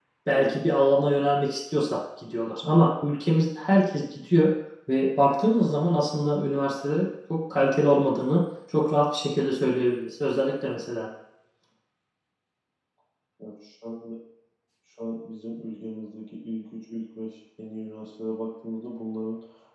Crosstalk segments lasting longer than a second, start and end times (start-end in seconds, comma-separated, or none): none